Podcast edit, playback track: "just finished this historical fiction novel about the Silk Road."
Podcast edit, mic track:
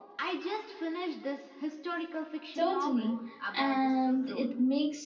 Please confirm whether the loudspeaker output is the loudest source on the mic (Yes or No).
No